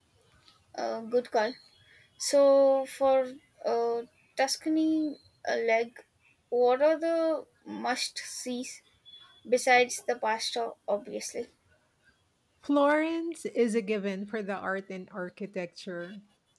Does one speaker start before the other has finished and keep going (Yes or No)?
No